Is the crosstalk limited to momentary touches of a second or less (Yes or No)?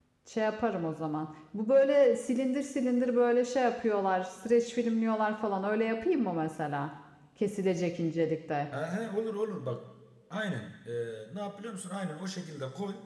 Yes